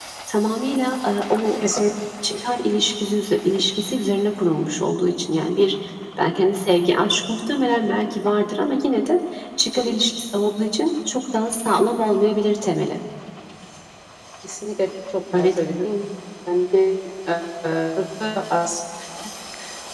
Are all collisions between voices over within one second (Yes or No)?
Yes